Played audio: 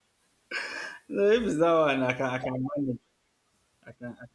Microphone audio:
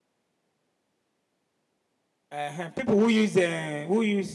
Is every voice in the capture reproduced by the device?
No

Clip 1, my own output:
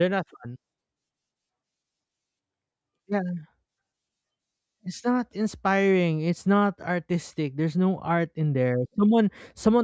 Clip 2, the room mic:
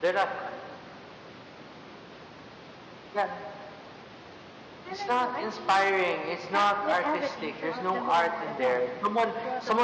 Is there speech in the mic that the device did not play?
Yes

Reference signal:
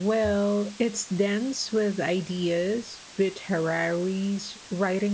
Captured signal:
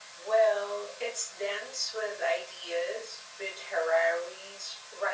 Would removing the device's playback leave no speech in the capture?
Yes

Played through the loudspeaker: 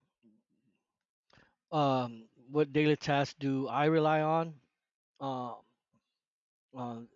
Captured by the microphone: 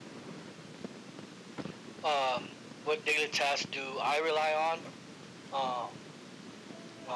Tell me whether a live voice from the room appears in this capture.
No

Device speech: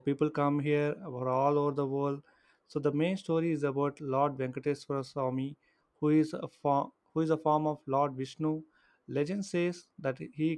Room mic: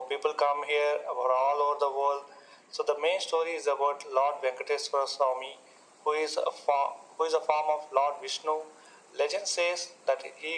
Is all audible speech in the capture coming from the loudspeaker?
Yes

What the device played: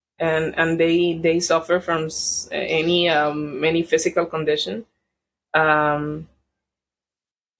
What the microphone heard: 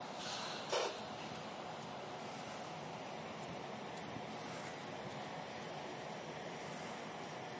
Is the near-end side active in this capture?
No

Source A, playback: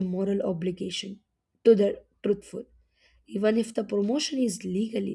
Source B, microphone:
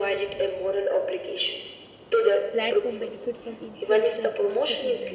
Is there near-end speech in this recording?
Yes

